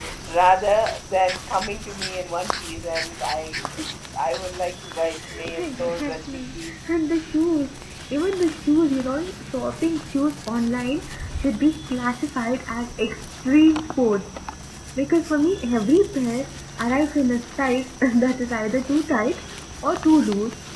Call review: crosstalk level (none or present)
present